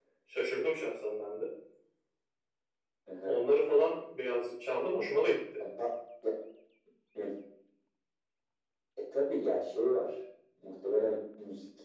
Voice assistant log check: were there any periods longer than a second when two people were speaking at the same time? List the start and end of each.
none

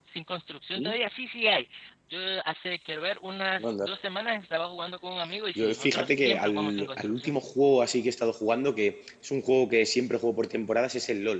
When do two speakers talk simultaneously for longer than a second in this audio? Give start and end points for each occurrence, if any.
5.6-7.3

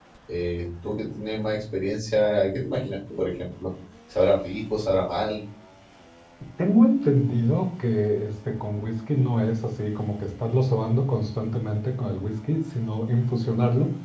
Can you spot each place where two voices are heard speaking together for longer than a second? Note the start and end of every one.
none

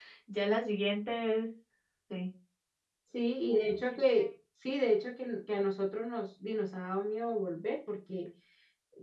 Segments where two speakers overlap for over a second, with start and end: none

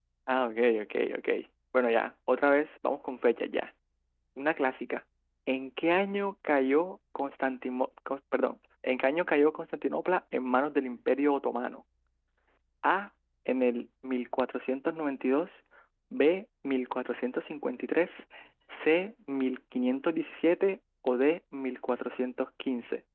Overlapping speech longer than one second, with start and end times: none

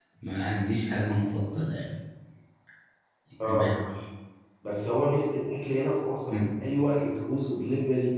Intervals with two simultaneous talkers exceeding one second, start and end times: none

